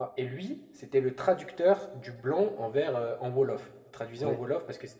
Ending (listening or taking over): listening